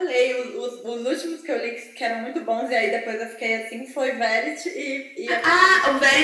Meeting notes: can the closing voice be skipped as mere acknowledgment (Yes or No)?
No